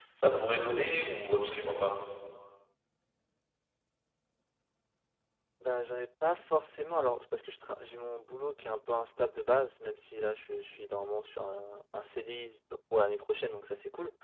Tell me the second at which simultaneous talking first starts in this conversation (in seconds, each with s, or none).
none